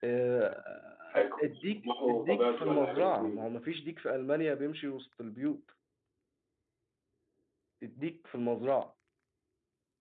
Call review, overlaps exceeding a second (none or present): present